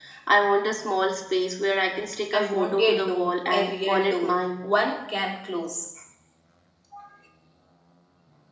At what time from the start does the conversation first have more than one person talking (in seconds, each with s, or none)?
2.3 s